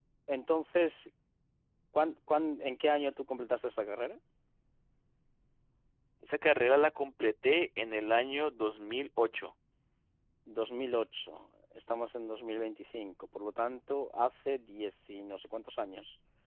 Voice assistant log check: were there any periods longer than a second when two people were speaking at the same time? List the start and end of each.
none

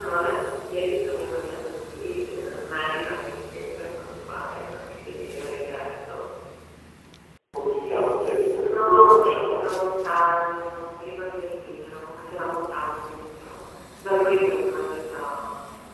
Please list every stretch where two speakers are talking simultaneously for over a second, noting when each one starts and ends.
8.5-9.8

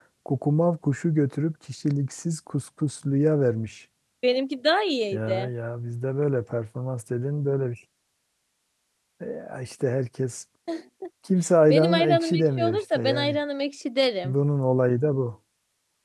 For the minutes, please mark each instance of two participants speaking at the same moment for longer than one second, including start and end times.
11.7-13.4

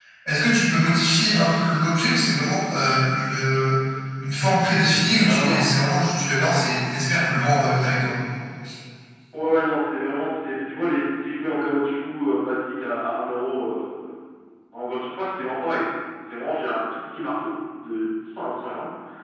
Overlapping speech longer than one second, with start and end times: none

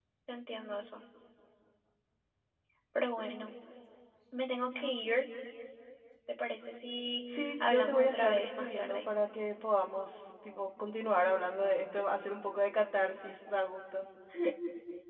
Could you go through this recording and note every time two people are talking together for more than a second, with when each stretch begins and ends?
7.3-9.0

